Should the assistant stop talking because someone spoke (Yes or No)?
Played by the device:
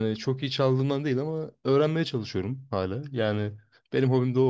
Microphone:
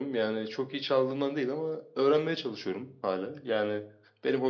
No